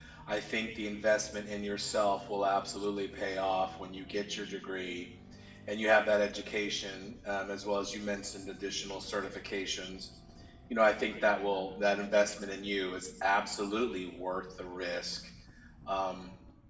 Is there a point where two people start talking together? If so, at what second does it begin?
none

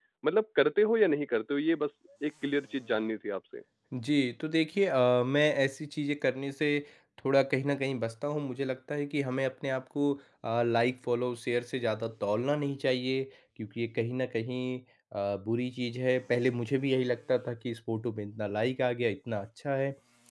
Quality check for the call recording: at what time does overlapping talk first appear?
none

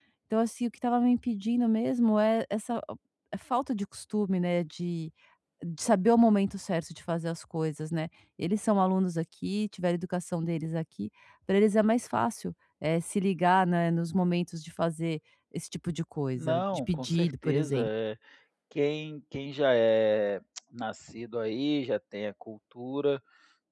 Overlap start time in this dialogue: 16 s

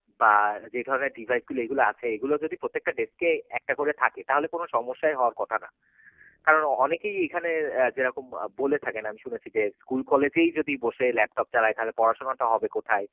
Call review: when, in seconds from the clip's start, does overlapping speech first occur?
none

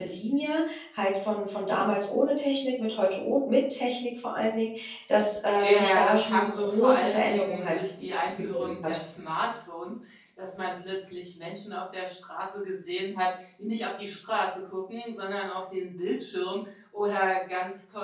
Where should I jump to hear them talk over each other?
6 s

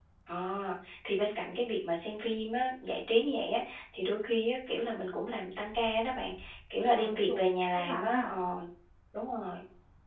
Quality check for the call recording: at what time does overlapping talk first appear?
7 s

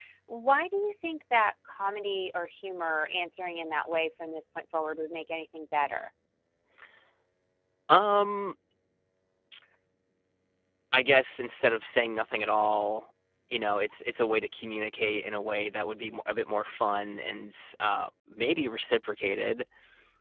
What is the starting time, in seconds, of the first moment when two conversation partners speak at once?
none

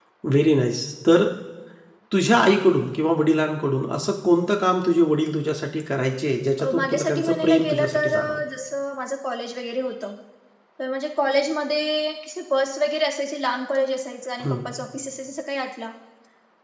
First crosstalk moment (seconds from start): 7 s

